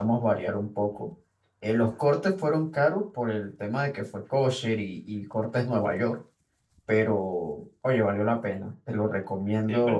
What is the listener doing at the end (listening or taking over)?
taking over